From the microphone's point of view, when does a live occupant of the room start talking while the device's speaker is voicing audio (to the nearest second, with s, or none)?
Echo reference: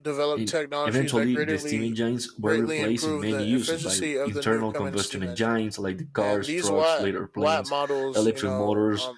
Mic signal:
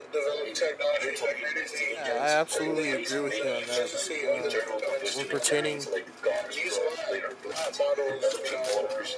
2 s